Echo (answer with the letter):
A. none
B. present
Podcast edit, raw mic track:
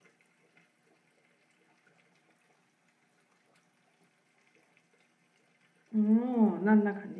A